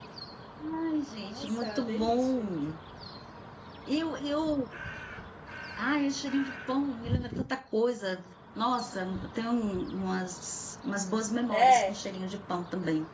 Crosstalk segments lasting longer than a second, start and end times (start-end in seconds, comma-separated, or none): 1.2-2.6